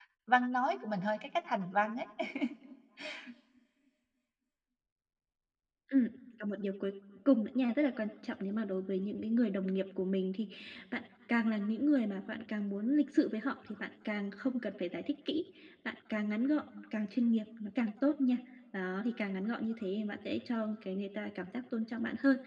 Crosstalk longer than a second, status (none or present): none